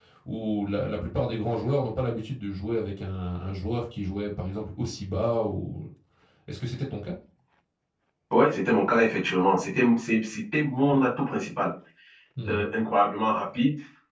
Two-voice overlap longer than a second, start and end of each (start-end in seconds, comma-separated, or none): none